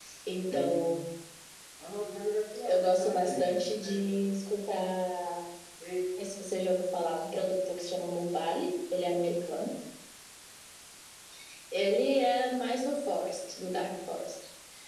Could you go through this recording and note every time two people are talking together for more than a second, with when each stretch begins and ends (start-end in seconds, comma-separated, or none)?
2.6-4.2